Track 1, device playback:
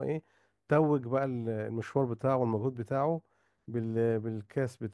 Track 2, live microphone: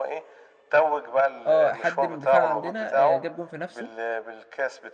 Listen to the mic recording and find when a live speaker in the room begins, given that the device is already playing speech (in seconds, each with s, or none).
1.5 s